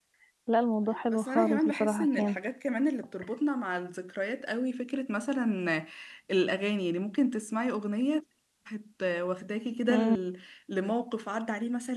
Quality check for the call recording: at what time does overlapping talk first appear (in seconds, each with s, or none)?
1.1 s